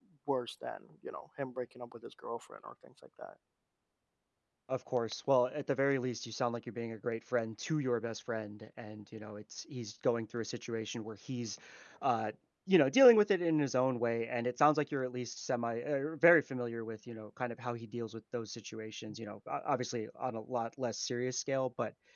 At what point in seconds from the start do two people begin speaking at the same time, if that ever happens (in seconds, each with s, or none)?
none